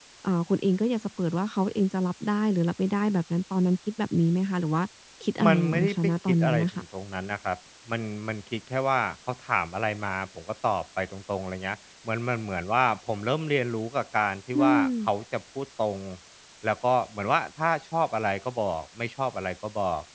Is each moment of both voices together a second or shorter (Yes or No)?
No